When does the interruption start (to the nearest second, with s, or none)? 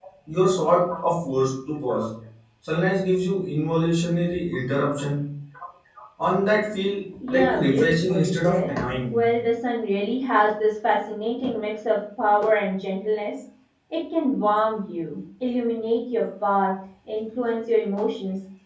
7 s